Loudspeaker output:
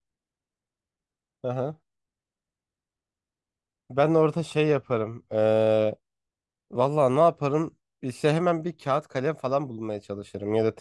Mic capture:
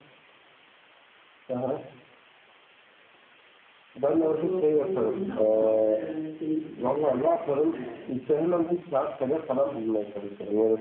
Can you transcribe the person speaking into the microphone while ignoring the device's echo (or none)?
motivasyonum yerinde ama e, şeyim yok yani. E,